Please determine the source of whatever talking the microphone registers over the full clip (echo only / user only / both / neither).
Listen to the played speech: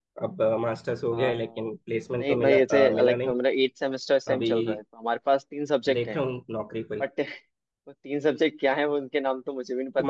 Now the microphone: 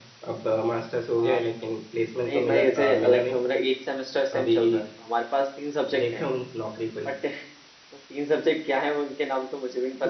echo only